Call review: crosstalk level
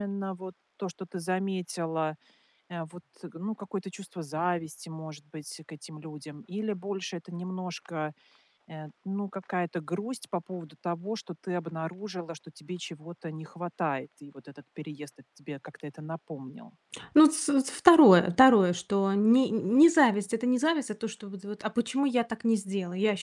none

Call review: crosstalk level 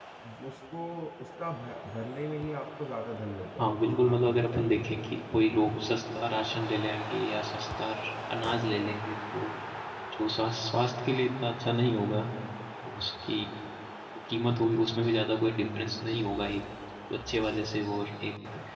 present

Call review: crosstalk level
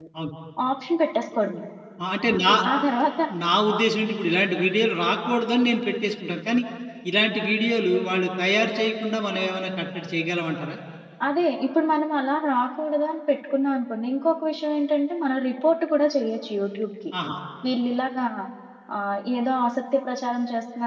none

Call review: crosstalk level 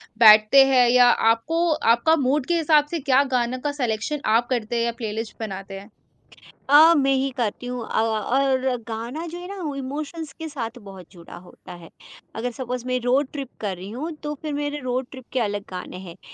none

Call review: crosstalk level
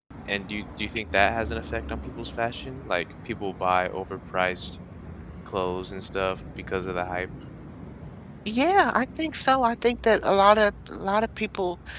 none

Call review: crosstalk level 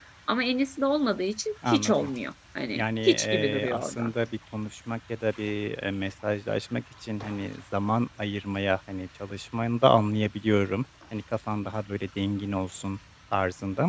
present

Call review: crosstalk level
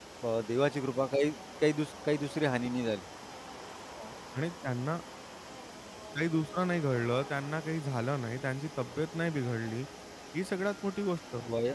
none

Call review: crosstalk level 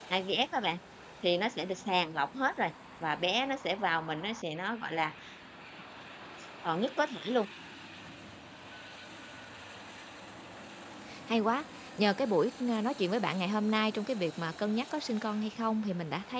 none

